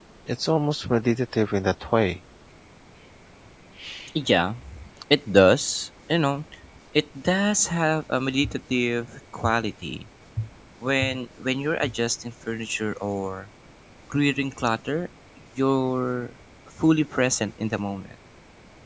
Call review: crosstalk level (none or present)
none